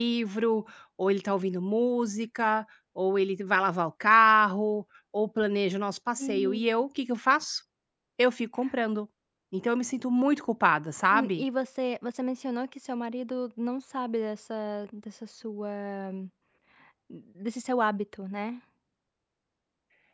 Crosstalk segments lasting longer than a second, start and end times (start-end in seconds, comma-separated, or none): none